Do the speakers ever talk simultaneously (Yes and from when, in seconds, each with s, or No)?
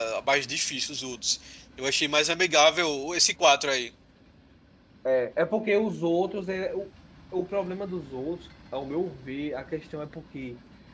No